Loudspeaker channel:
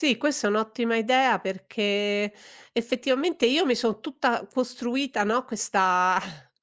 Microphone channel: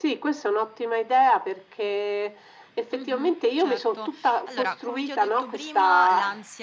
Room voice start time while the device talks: 2.9 s

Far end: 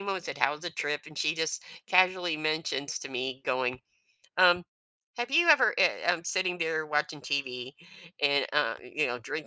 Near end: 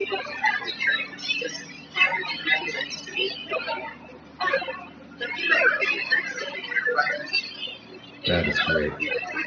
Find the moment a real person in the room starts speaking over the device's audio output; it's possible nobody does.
8.3 s

